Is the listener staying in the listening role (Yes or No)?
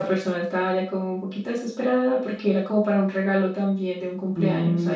No